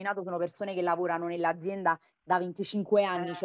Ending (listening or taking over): listening